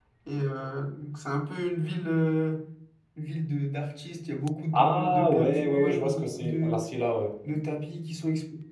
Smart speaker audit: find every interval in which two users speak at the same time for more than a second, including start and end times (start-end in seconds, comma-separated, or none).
4.7-6.8